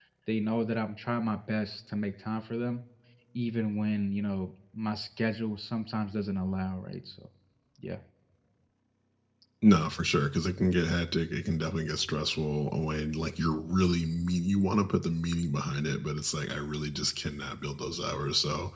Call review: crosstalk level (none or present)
none